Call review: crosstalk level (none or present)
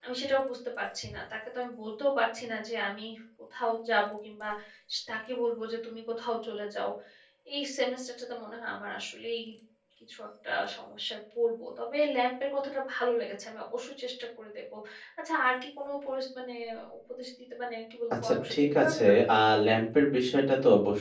present